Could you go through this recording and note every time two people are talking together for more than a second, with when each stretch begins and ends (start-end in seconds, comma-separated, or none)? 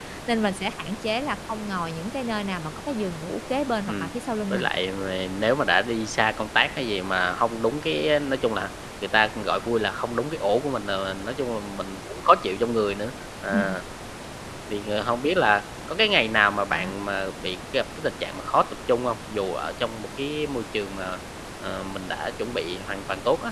none